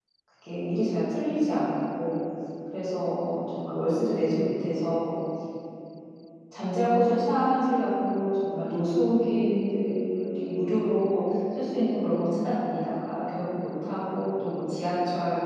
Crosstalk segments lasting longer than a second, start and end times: none

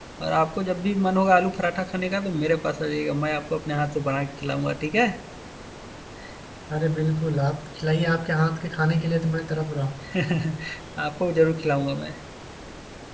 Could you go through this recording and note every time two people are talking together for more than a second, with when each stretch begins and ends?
none

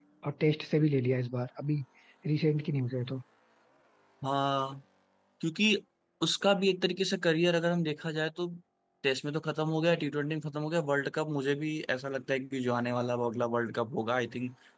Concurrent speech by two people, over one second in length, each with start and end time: none

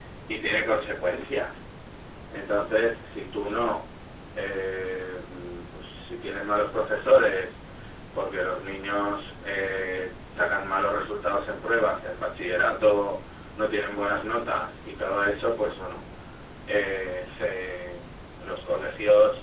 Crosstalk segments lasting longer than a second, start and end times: none

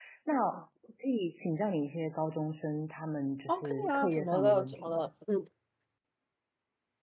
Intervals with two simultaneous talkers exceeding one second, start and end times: 3.5-5.1

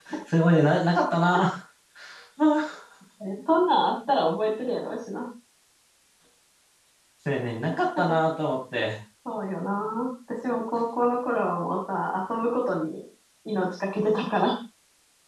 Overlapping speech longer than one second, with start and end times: none

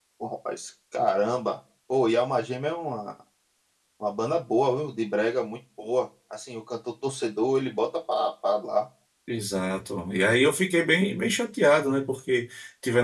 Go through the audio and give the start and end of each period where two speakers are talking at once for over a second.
none

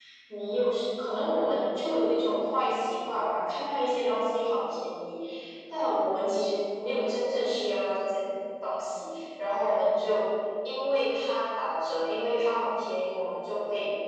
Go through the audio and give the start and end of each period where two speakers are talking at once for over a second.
none

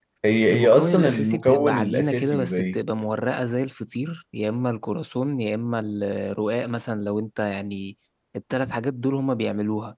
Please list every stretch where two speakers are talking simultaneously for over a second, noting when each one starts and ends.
0.5-2.8

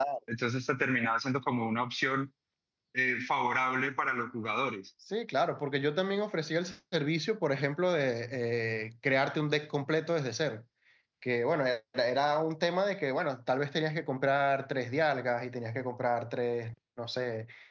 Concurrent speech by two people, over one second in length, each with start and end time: none

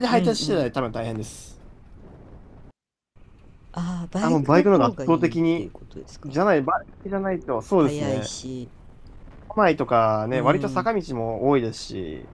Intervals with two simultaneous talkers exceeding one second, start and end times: 4.2-5.7

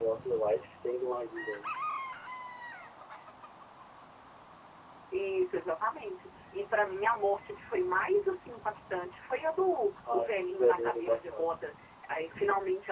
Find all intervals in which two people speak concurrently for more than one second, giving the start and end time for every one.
10.1-11.5

